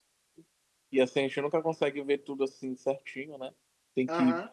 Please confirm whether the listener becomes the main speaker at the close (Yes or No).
No